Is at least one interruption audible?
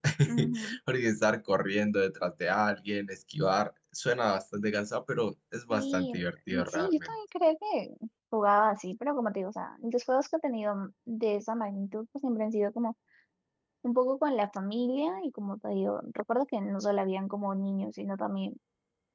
Yes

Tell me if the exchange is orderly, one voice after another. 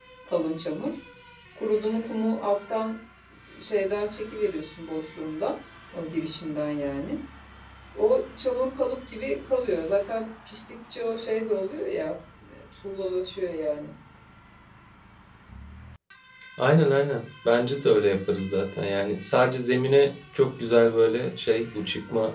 Yes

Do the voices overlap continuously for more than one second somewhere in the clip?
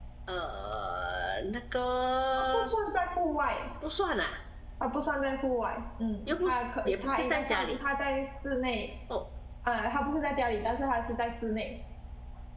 Yes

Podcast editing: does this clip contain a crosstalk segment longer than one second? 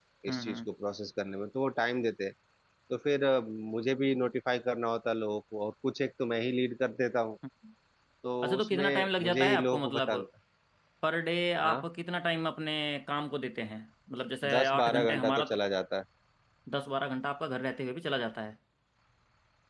Yes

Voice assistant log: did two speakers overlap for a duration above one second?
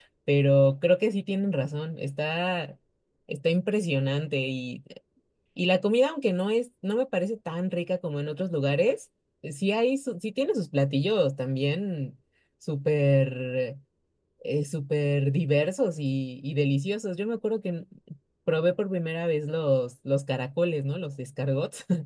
No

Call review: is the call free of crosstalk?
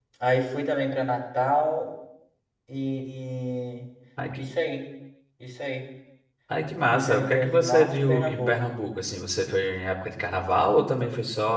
No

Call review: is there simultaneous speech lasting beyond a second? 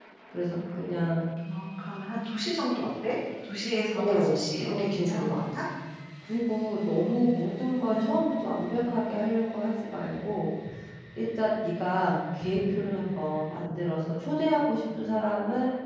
Yes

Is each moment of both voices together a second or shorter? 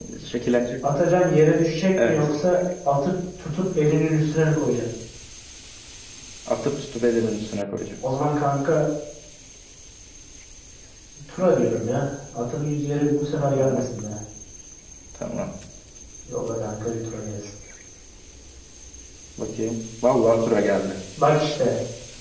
Yes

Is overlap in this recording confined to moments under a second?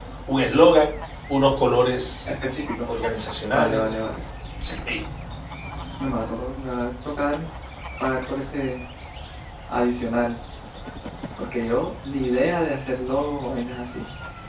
Yes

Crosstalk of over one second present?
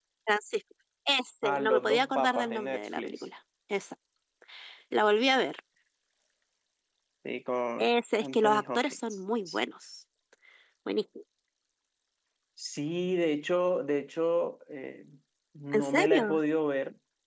Yes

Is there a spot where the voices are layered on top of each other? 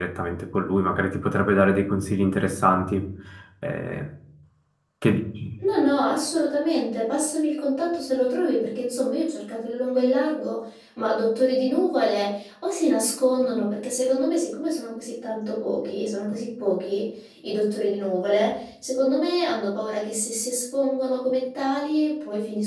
No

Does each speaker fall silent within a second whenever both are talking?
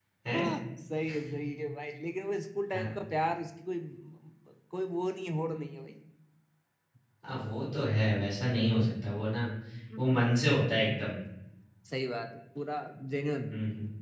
Yes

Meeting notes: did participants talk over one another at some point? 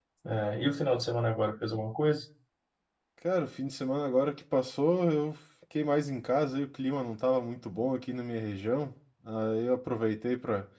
No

